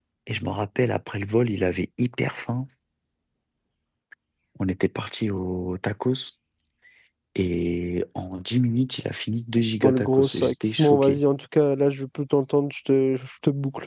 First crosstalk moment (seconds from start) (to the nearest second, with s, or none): 10 s